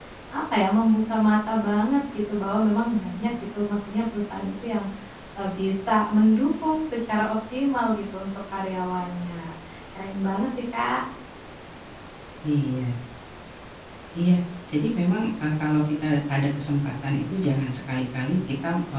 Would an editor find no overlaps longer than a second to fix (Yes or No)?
Yes